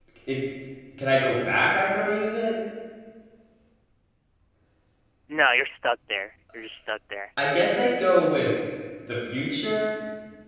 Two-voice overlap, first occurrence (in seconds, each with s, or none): none